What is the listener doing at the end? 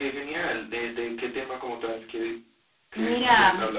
taking over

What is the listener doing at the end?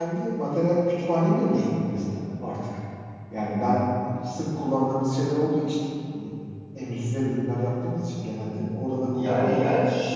taking over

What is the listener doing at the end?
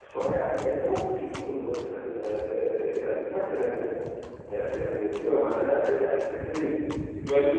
listening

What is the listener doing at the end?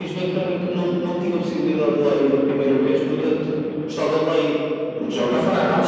taking over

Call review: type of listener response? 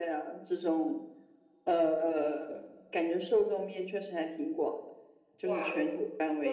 taking over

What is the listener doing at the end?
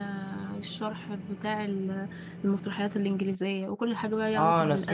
taking over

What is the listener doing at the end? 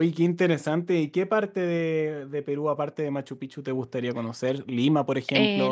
taking over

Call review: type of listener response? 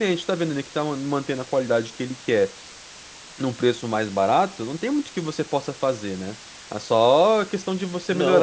listening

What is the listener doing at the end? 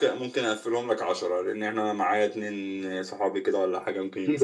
taking over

